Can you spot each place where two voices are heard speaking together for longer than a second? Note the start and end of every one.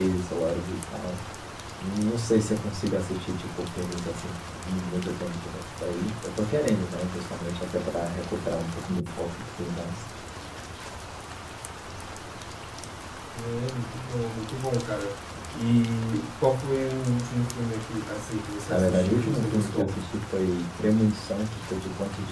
18.7-20.0

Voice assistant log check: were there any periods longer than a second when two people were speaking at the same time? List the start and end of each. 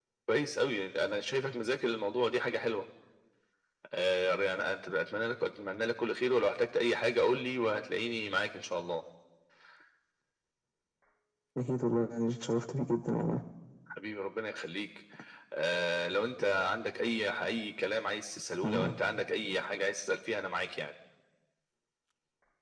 none

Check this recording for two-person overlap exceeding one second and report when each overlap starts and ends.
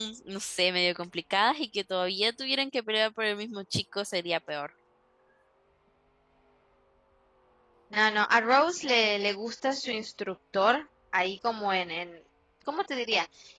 none

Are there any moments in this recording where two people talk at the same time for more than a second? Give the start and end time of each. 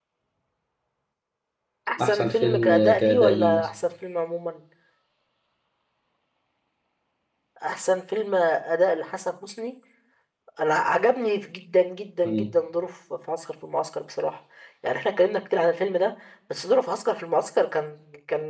2.0-3.7

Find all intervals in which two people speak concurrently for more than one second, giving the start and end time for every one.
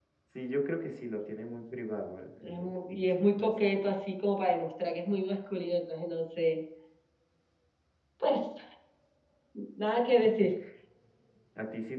2.4-3.9

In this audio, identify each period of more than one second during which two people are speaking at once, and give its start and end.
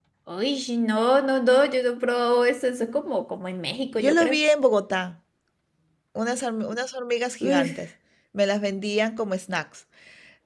none

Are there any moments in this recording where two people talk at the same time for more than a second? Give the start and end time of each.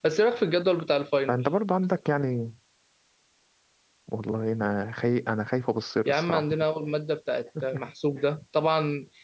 none

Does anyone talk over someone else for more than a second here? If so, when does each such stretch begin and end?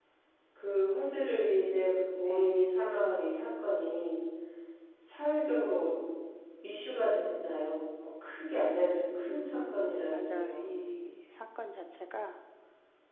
9.3-10.7

